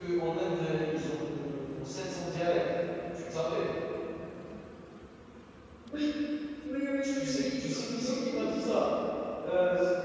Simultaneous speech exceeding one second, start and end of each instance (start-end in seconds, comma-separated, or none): 7.0-8.4